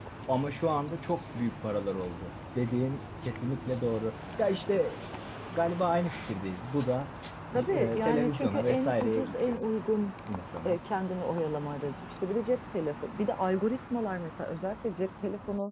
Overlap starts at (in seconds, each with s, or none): 7.5 s